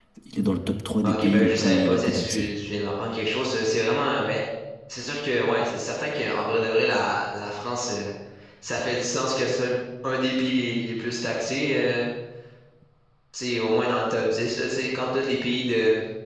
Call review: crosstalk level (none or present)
present